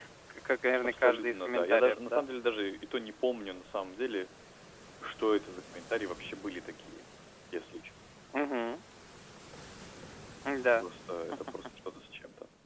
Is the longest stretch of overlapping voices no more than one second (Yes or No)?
No